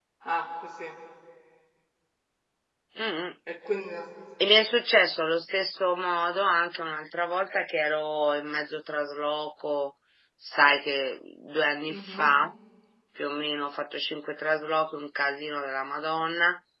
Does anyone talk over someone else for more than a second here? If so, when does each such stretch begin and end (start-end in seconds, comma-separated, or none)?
none